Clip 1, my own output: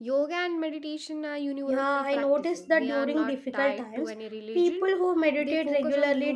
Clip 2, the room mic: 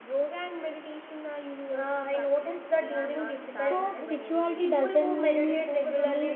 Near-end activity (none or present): present